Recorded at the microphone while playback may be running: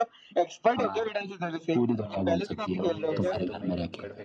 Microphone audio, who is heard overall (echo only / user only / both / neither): both